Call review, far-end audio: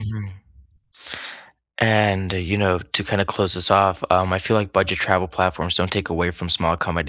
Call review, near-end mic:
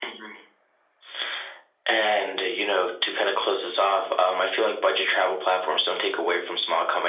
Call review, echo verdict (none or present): present